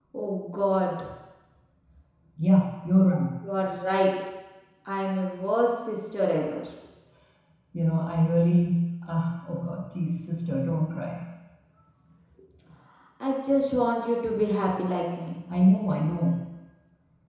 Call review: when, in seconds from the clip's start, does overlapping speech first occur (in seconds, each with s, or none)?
none